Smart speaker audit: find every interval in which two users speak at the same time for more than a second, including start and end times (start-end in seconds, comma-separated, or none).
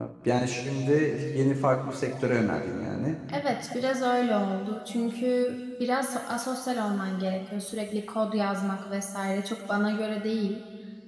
none